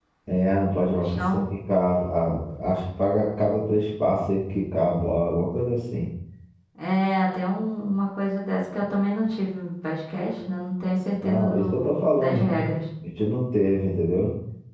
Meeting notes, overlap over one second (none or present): present